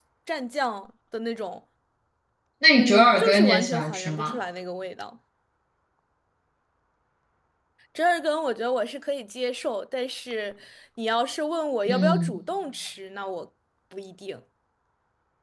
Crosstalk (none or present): present